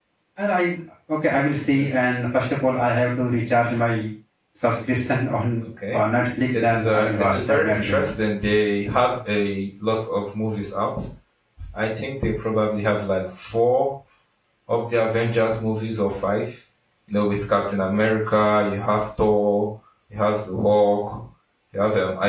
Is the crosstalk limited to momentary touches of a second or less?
No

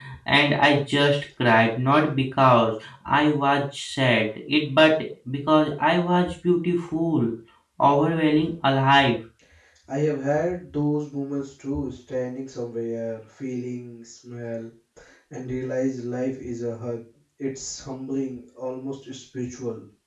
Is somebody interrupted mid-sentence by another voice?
No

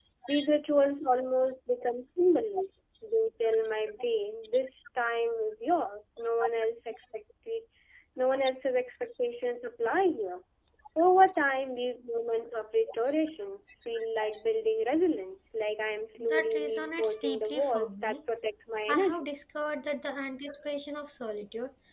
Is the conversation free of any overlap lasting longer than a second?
No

